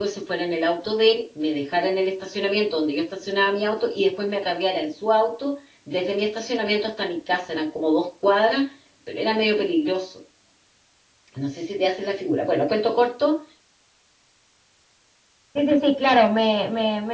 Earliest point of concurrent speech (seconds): none

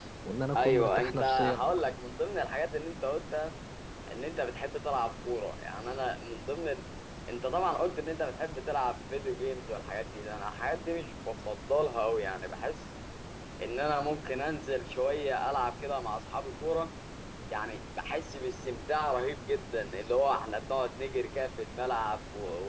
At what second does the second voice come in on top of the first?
0.5 s

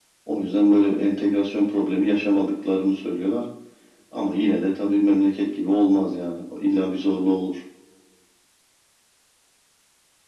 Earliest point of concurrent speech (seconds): none

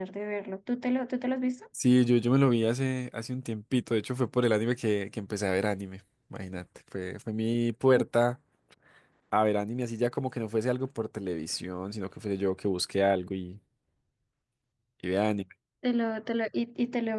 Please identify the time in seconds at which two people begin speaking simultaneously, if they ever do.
none

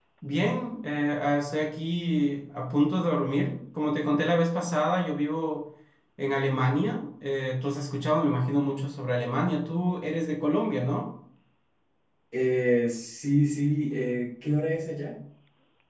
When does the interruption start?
none

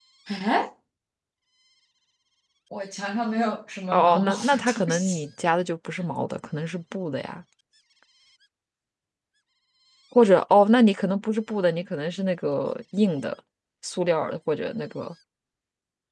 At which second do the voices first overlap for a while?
3.9 s

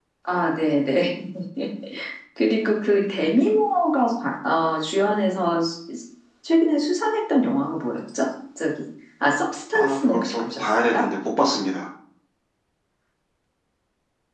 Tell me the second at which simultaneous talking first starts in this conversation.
9.7 s

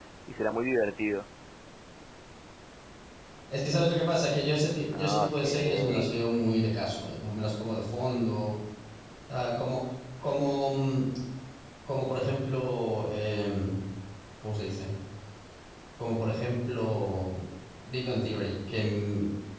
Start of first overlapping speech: 4.9 s

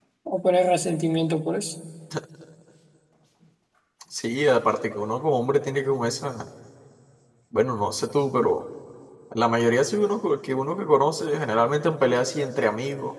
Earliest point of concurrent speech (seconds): none

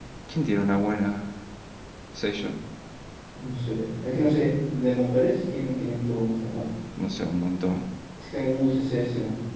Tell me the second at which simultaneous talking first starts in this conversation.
none

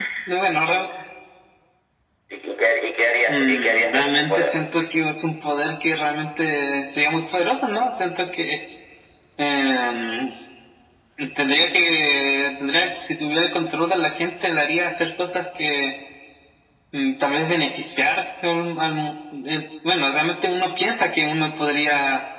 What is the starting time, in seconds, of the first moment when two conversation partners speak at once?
3.3 s

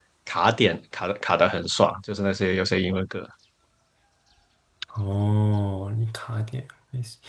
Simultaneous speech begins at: none

